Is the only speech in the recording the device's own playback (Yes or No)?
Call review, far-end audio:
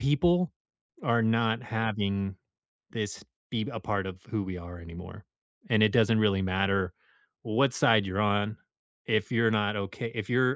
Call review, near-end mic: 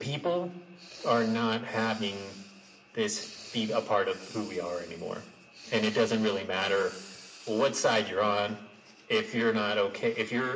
Yes